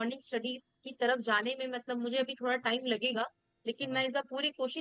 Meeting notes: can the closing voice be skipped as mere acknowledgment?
Yes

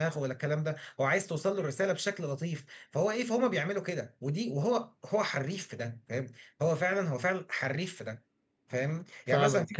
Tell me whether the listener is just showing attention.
No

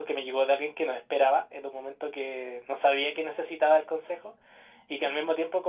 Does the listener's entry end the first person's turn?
No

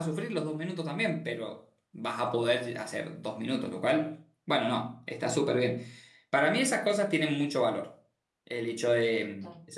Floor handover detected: No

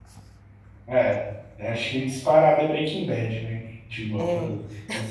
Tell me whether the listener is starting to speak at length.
No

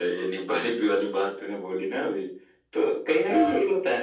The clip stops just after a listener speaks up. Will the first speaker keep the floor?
Yes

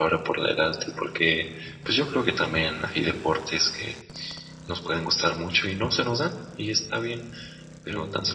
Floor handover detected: No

